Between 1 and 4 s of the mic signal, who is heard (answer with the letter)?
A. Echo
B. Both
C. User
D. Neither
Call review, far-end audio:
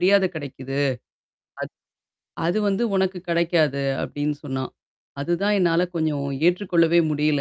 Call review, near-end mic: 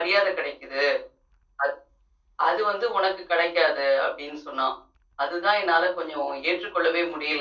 A